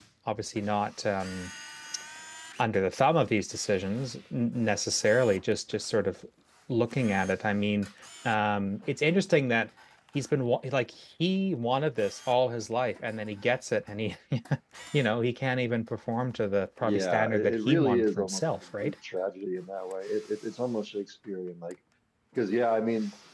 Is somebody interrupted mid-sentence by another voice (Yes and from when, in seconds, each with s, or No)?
Yes, from 16.8 s